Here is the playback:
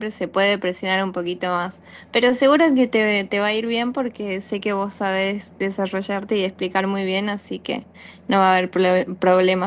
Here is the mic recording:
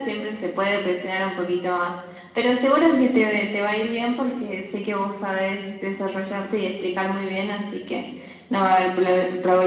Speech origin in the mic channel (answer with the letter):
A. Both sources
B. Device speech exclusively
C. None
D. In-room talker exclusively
B